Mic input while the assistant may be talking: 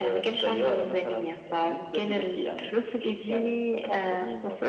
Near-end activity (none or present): none